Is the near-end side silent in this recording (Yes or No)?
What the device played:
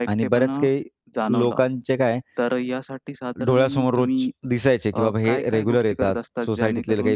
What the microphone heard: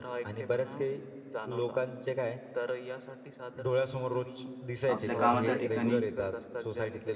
No